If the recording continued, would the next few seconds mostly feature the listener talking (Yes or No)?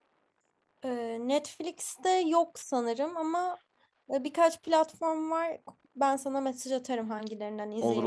Yes